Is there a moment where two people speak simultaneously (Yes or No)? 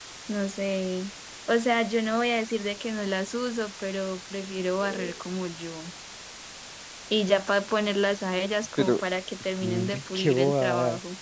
Yes